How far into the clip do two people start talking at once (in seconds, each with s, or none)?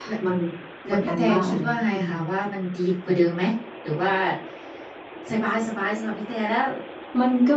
0.9 s